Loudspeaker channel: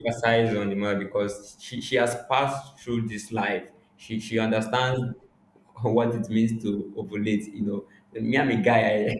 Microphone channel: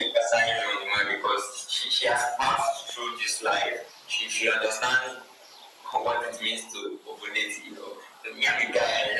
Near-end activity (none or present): none